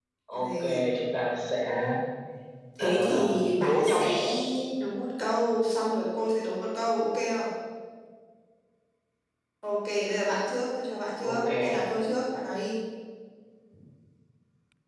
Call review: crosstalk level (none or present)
present